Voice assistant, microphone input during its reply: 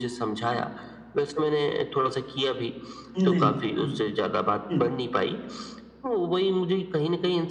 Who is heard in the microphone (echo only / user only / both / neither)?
both